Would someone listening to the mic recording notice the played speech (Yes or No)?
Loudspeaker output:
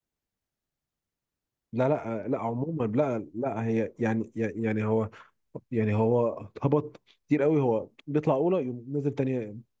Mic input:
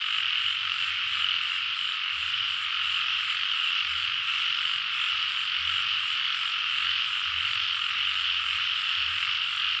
No